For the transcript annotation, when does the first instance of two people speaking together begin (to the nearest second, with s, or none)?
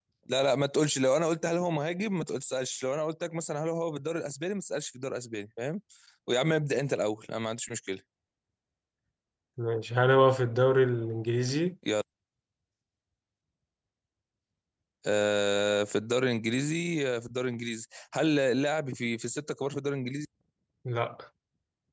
none